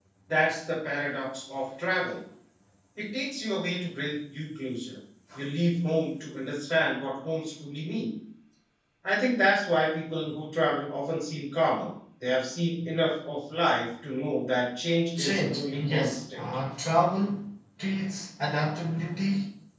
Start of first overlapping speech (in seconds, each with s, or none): 15.2 s